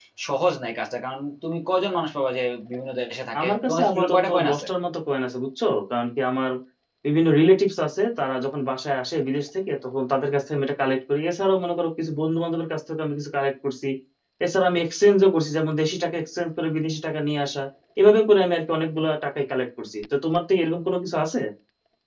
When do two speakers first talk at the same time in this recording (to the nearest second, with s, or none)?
3 s